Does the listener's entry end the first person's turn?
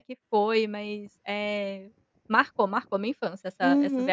Yes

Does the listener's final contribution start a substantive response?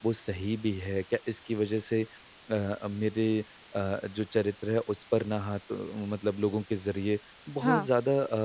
No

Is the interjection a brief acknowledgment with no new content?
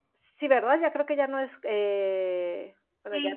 No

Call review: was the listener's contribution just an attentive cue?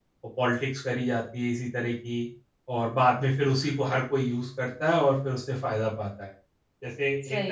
Yes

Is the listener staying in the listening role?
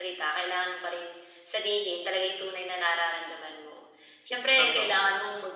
Yes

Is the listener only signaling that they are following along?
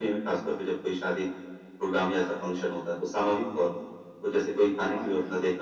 Yes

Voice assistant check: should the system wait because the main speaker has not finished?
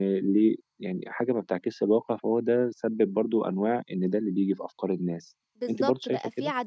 No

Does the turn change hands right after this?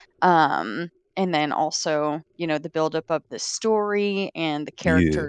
No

